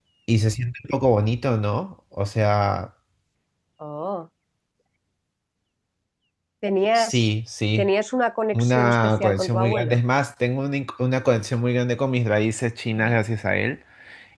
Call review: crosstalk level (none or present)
present